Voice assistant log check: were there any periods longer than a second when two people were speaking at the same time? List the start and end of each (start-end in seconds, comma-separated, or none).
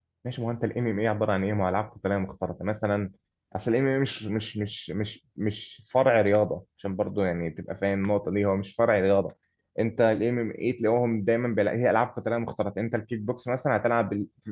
none